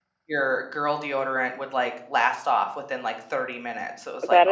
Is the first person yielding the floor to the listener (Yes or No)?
Yes